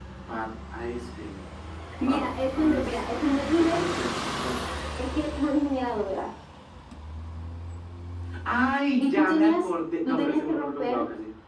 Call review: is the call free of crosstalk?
No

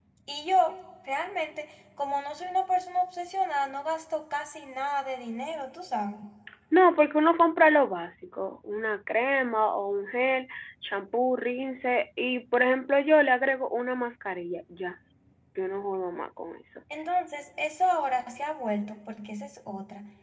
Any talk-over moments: No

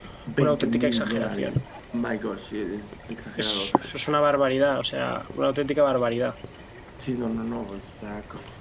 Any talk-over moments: Yes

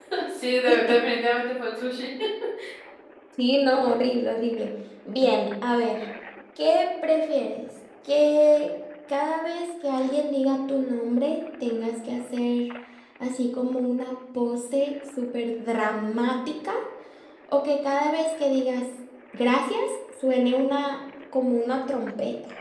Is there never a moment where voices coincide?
Yes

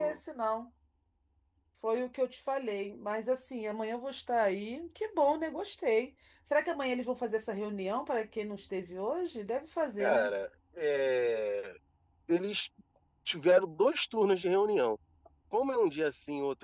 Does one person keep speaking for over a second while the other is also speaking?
No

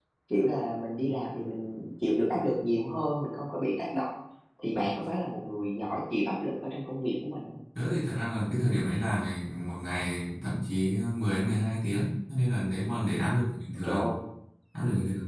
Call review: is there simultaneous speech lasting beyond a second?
No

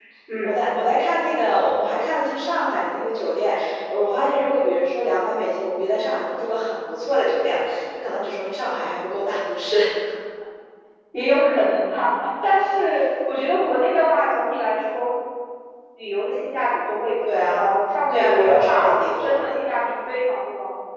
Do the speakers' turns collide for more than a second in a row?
Yes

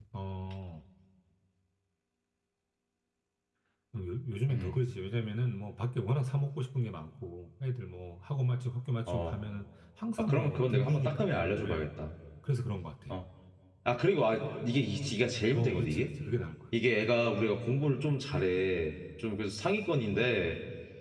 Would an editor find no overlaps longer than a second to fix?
No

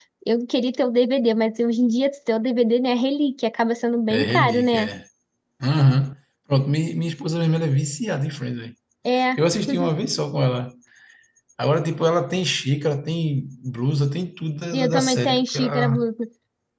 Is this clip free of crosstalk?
No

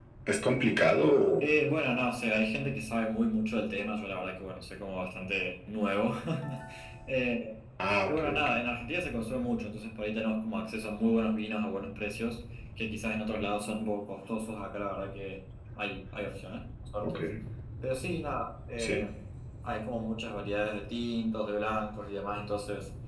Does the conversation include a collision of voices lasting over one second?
No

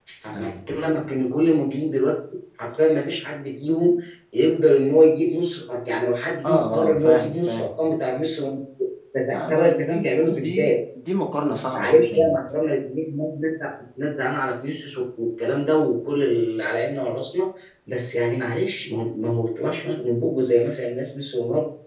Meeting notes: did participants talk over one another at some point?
Yes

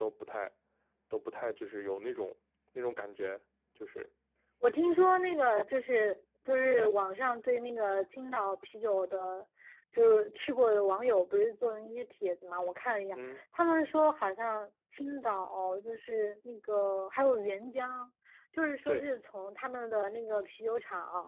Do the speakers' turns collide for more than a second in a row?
No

